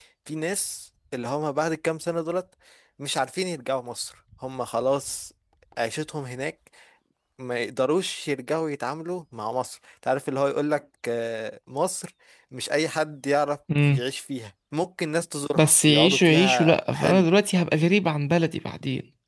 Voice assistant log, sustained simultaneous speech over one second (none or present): present